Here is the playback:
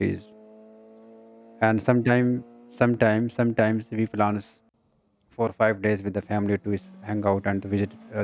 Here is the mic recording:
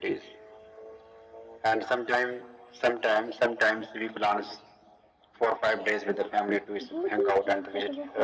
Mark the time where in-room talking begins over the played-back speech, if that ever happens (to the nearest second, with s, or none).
7 s